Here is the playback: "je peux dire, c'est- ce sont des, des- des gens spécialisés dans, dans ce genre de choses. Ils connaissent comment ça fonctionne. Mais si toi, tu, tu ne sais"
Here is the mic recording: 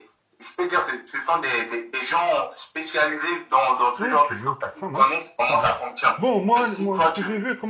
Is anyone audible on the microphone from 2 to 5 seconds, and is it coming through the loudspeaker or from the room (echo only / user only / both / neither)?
both